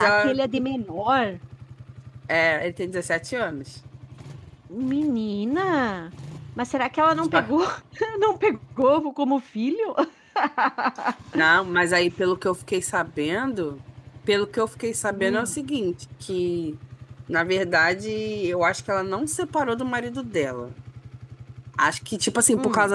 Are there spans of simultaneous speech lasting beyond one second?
No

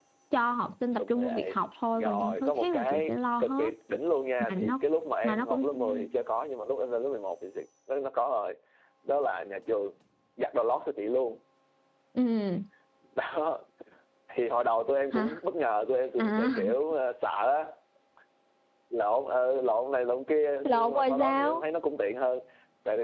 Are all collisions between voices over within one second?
No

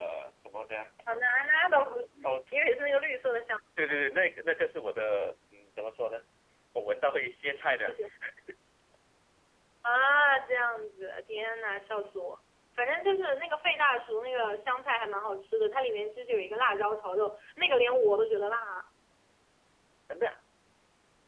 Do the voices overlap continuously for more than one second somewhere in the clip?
No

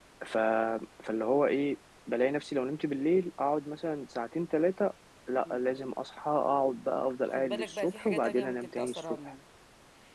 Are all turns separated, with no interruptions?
No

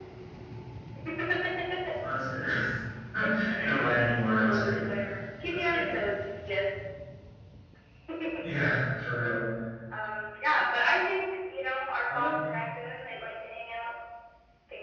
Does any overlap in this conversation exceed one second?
No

